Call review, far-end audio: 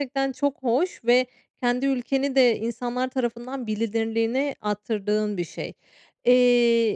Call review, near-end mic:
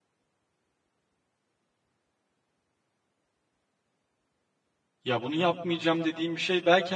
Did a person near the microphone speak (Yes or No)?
Yes